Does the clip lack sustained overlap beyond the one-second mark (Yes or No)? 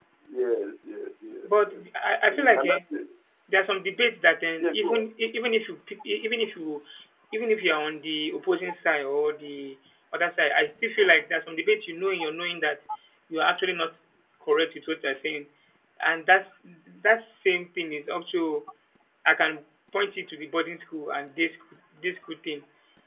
Yes